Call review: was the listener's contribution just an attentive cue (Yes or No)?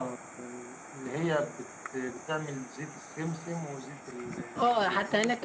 No